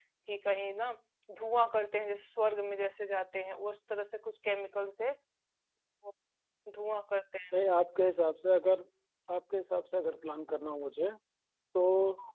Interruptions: none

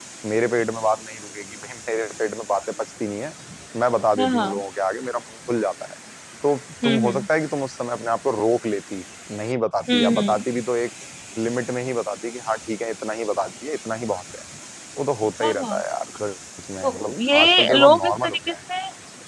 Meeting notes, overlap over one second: present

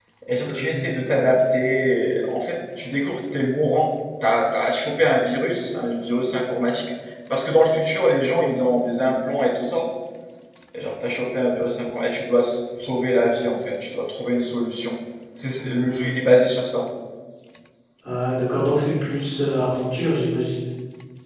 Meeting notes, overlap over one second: none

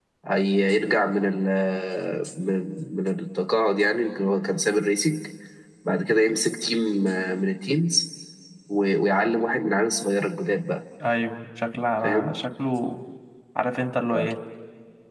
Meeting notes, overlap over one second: none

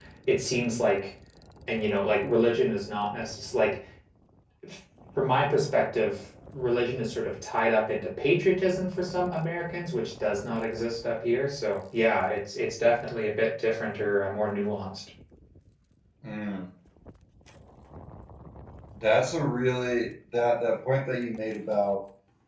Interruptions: none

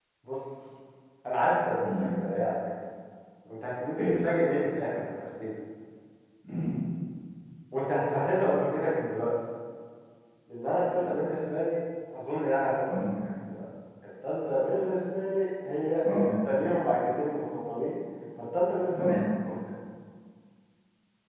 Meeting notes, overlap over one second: none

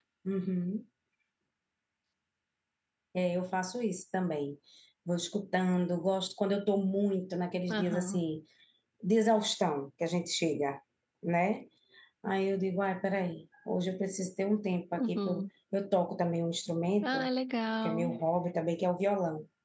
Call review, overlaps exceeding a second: none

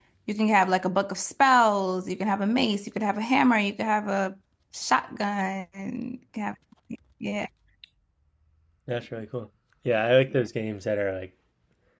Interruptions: none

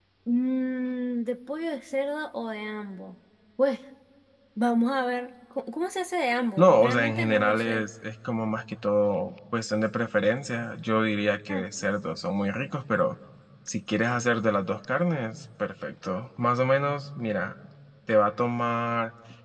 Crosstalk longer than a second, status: present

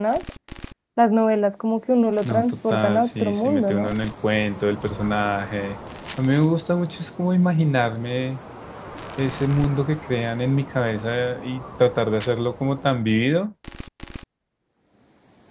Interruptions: present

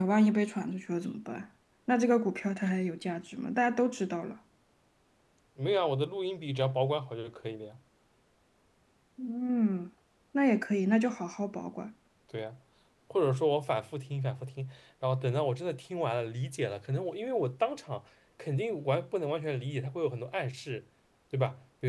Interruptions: none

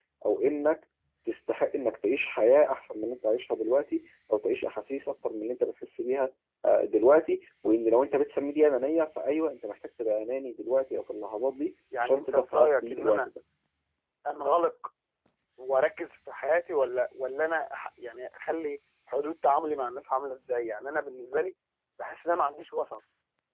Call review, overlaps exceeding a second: present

